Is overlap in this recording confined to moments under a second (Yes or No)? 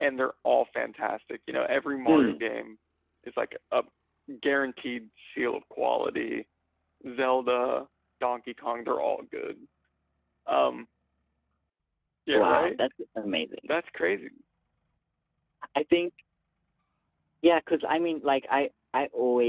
Yes